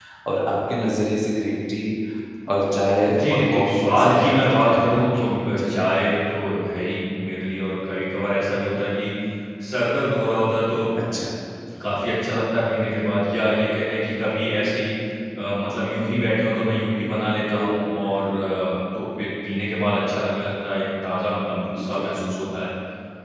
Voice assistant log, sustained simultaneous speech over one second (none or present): present